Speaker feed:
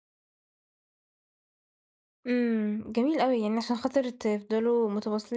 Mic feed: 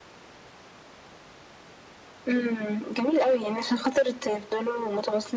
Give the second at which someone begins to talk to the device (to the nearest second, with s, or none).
none